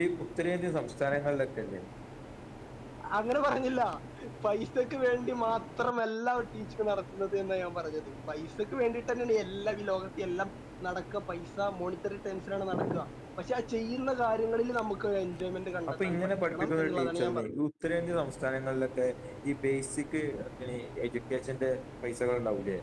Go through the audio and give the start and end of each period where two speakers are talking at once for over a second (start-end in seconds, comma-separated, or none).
15.9-17.6